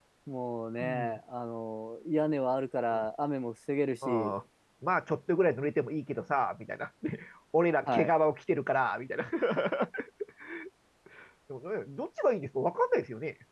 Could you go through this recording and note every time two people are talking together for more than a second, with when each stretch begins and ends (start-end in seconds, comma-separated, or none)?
none